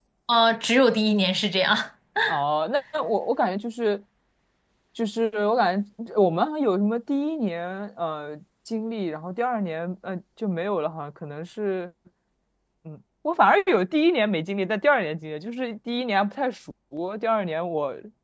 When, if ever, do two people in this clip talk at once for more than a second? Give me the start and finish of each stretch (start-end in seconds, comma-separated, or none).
none